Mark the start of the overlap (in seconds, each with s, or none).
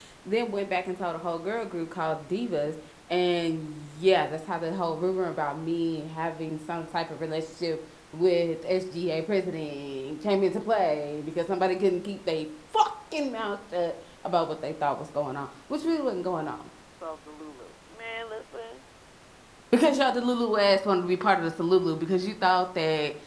none